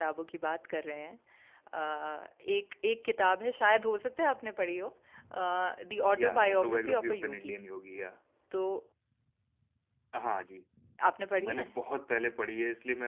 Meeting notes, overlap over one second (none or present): present